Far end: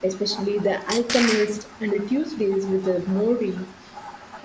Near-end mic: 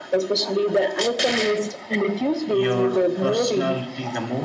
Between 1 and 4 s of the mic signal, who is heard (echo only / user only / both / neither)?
both